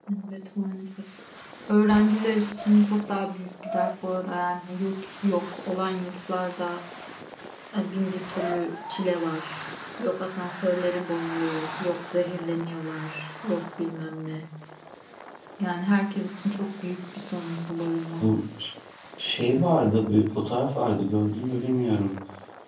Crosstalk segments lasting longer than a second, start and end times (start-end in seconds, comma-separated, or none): none